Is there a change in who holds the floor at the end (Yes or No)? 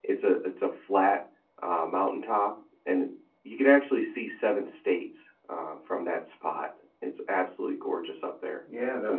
Yes